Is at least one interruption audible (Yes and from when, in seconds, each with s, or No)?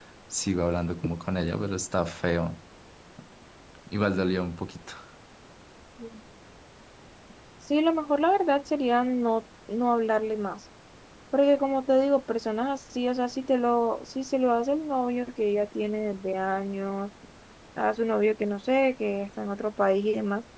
No